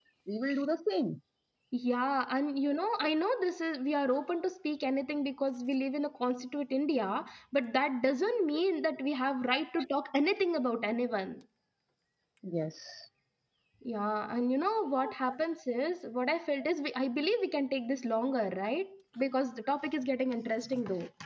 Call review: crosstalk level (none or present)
none